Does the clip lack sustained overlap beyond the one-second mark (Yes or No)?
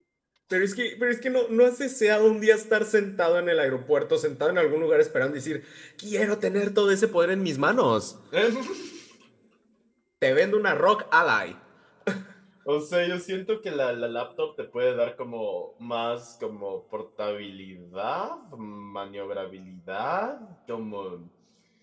Yes